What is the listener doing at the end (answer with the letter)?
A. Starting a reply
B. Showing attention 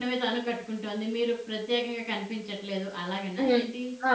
A